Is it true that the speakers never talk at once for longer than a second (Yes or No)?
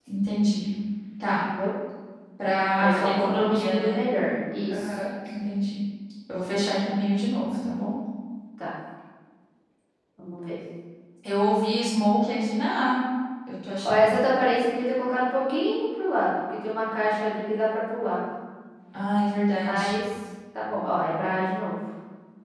No